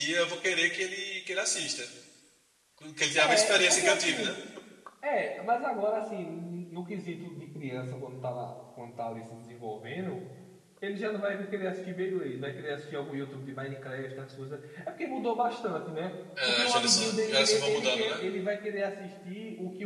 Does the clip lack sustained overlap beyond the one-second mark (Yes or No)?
No